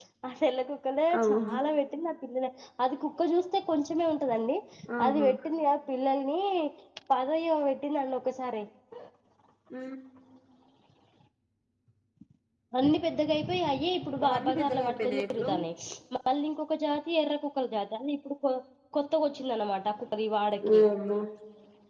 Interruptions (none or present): present